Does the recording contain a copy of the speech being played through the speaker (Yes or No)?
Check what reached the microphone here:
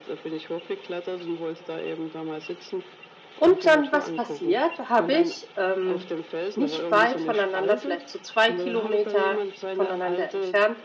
Yes